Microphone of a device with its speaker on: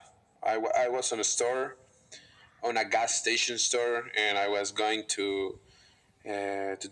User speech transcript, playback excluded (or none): none